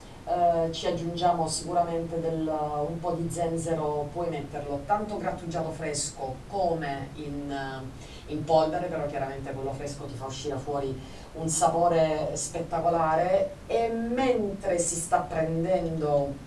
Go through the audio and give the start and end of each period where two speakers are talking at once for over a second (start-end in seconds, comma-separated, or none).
none